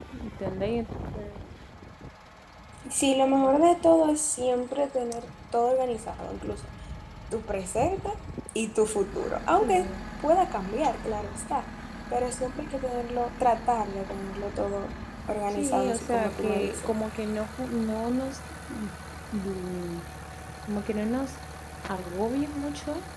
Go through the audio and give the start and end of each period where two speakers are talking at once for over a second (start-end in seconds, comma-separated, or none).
15.5-16.9